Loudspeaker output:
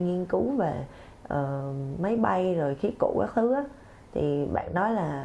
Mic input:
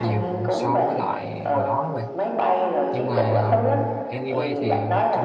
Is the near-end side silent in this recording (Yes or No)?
No